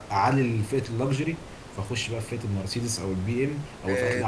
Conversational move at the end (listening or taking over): taking over